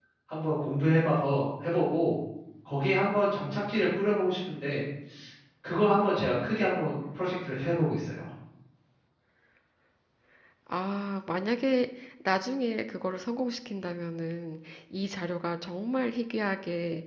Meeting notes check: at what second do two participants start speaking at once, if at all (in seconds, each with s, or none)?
none